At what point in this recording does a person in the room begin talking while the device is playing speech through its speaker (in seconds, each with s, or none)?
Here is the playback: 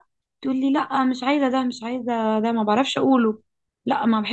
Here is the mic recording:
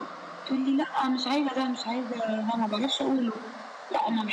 none